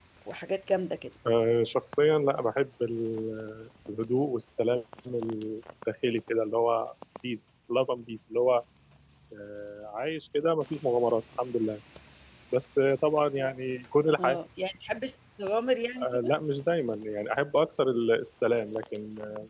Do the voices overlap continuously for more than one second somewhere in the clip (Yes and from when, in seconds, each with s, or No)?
No